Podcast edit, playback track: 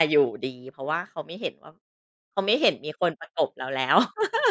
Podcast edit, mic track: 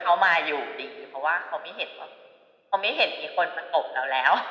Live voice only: none

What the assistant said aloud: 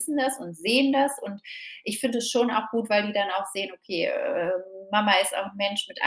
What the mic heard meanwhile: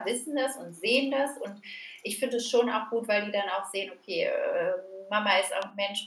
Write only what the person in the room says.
none

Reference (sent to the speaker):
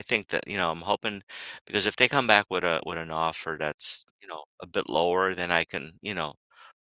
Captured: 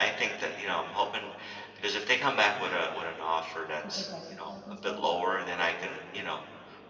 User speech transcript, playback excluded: to protect yourself and stuff?

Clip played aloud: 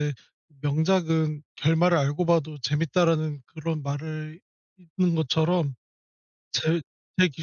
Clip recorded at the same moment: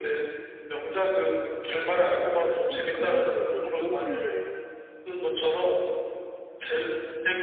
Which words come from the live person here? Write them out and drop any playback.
어 그런 거 인제 어떤 분들은

